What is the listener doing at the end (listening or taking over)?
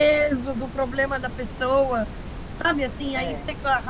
listening